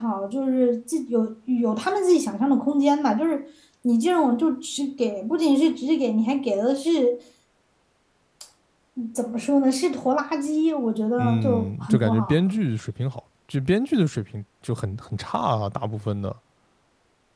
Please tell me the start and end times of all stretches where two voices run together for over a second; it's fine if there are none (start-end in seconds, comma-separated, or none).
11.2-12.5